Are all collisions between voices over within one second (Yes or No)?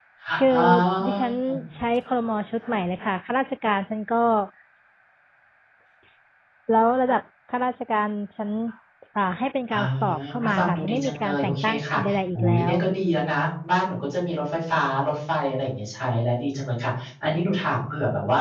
No